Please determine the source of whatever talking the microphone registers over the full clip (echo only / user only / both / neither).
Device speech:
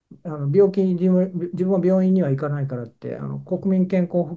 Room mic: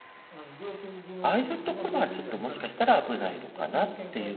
both